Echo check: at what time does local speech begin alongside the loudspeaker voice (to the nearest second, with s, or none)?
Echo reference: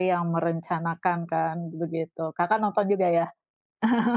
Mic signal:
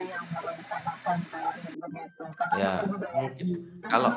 3 s